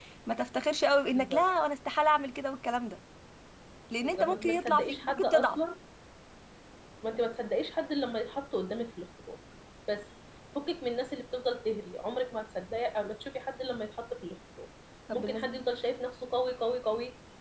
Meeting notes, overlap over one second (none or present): present